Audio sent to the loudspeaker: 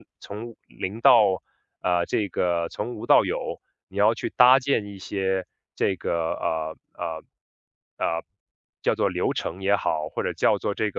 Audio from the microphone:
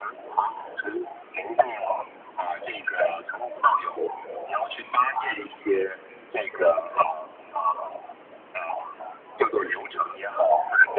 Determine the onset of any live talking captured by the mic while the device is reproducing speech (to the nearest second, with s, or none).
none